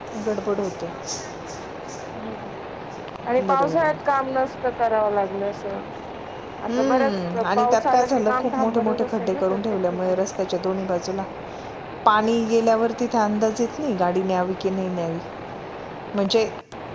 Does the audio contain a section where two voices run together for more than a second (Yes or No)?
Yes